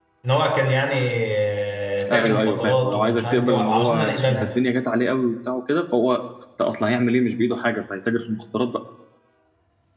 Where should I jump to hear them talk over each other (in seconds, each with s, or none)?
2.1 s